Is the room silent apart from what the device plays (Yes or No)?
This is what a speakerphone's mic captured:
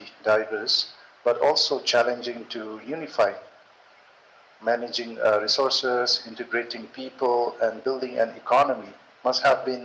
Yes